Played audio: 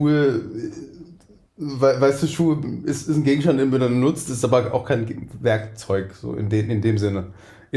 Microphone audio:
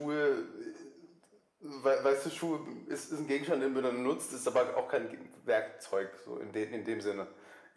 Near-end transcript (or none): none